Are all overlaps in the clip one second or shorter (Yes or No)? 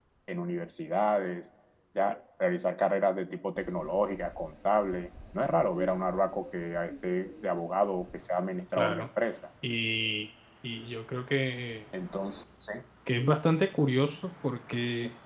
Yes